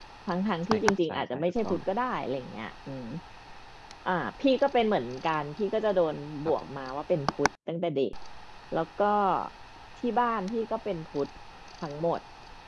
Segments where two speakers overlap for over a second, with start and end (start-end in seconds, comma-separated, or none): 0.6-1.9